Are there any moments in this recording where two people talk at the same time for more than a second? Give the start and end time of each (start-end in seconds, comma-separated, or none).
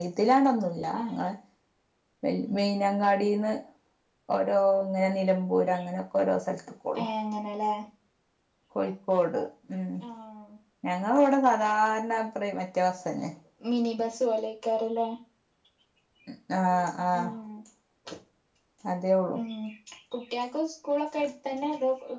none